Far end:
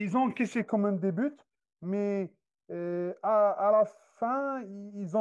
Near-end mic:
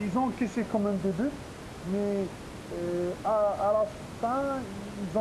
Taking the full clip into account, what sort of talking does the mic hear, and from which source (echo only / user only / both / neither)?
echo only